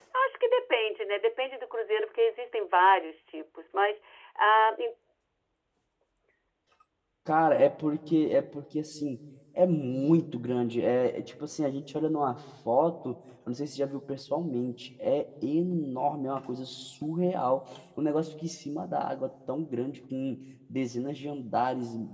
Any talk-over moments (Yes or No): No